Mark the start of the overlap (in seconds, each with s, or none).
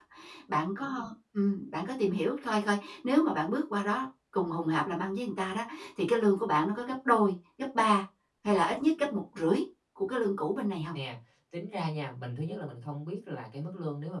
none